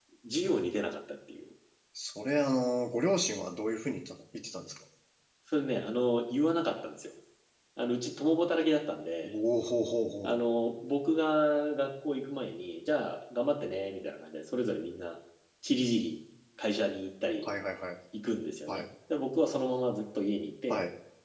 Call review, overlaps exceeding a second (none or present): none